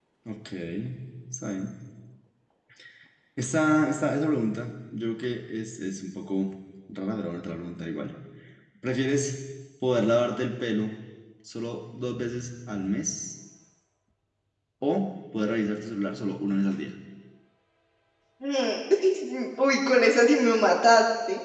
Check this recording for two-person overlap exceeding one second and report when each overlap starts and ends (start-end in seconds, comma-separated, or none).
none